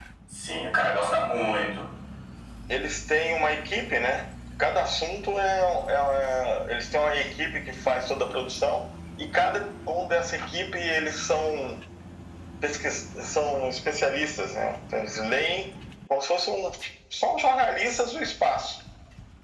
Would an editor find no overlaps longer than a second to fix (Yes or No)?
Yes